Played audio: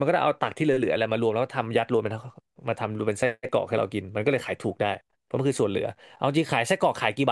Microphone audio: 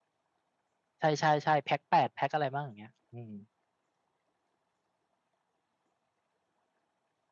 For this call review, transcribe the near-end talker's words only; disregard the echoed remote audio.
ใช่ใช่ใช่แพ็คแปดแพ็คอะไรบ้างอย่างเงี้ยอืม

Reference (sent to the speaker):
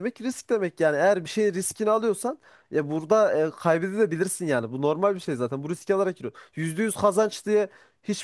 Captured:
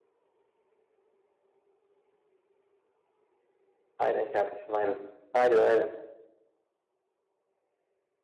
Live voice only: aynen kardeşim aynen. Aynen aynen.

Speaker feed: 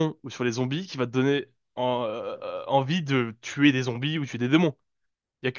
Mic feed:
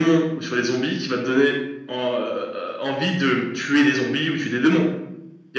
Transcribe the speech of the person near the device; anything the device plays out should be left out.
none

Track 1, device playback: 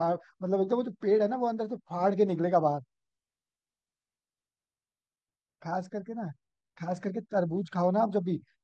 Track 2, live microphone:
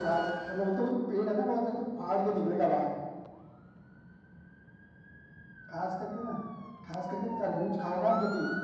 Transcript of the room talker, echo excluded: none

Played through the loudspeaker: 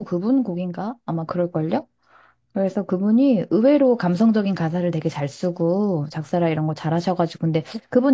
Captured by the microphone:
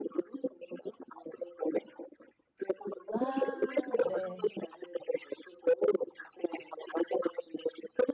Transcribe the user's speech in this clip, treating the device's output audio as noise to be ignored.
와, 네.

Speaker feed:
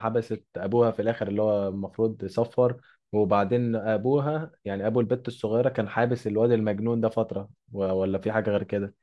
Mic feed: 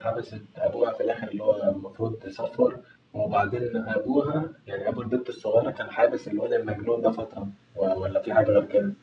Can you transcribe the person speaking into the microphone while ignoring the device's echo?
none

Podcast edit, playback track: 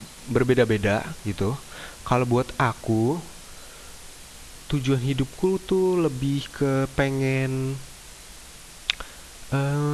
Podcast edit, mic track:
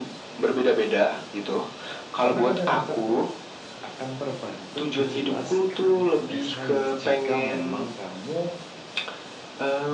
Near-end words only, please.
konsep-konsep tersebut akan terbantu dijelaskan oleh sains jika memang kamu

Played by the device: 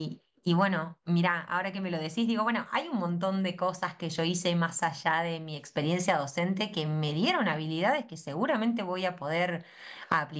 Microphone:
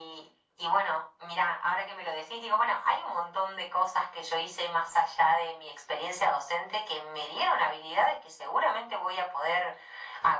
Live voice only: none

